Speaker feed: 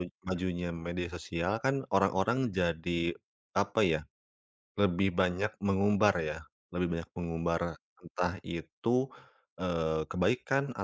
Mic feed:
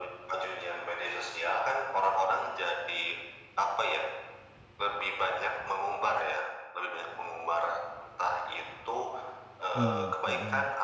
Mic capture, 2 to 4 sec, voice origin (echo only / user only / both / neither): echo only